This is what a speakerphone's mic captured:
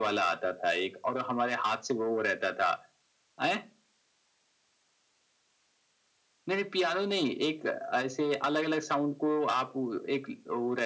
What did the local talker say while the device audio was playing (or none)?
none